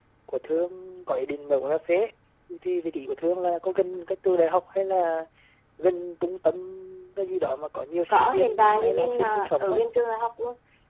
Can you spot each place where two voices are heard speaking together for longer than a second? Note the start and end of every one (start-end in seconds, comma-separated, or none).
8.1-9.8